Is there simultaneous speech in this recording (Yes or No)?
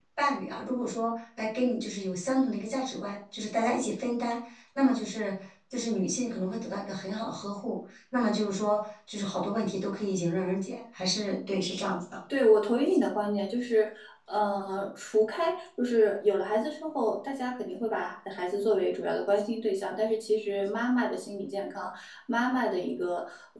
No